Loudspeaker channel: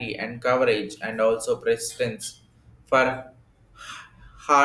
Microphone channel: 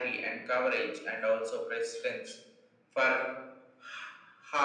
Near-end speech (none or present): none